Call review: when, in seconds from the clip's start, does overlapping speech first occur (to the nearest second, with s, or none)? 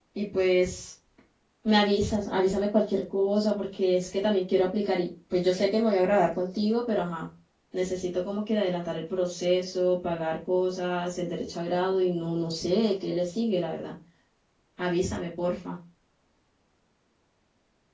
none